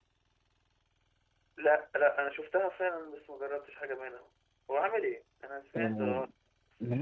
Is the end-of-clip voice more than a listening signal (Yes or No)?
Yes